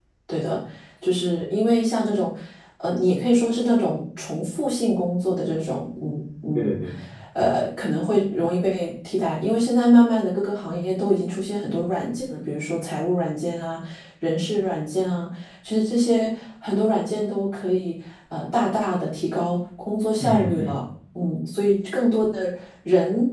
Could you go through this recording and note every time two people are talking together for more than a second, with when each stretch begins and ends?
none

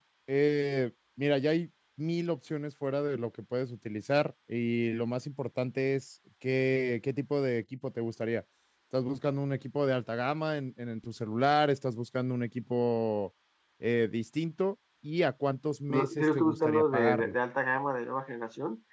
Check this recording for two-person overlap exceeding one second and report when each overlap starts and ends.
15.9-17.4

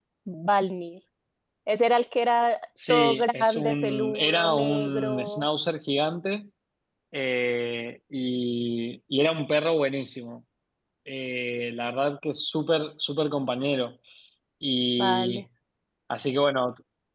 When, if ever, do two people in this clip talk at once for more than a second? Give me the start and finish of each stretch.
2.9-5.5

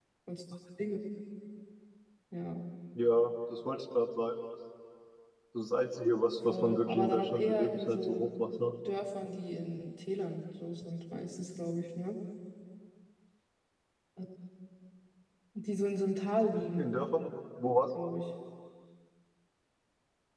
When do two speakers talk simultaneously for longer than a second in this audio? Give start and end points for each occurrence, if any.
6.5-8.3

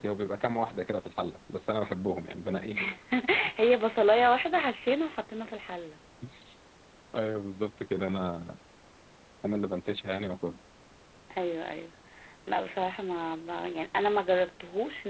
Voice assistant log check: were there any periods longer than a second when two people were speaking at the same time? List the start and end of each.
none

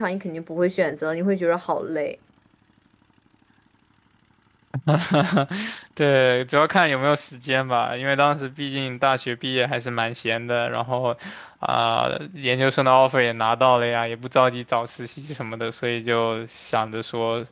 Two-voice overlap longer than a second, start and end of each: none

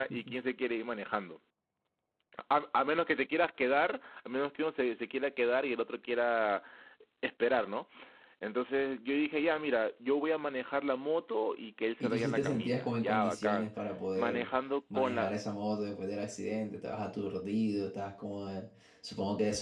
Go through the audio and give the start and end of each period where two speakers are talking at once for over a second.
12.0-13.7

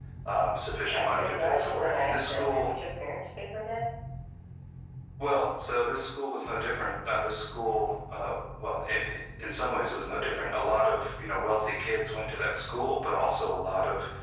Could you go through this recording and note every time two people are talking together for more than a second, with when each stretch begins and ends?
0.9-2.8

